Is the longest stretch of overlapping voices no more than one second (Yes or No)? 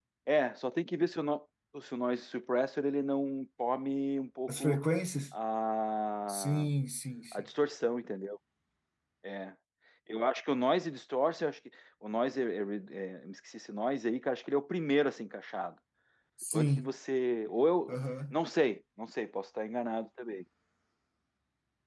Yes